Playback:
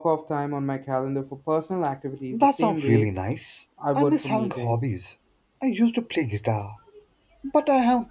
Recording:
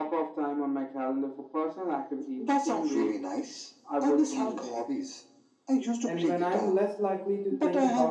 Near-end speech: present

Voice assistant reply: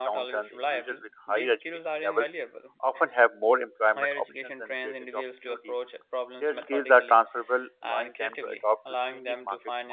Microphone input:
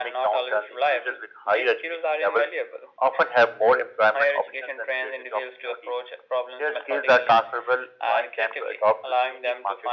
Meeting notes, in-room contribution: none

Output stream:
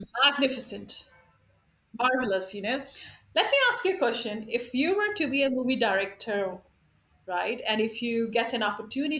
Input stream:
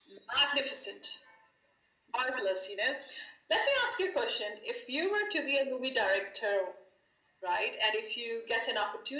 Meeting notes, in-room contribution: none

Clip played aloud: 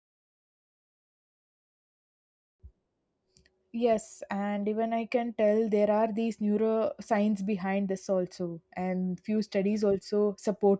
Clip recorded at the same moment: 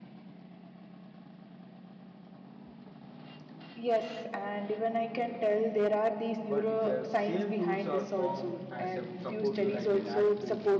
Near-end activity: present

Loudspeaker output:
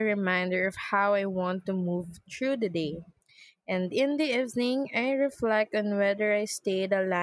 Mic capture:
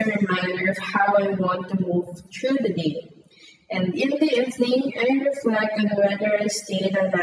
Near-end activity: none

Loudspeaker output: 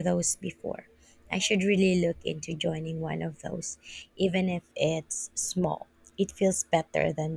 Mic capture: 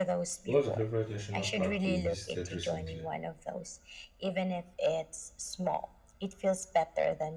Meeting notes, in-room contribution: present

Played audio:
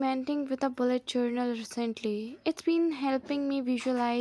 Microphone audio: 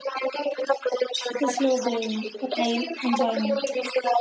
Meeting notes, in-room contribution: present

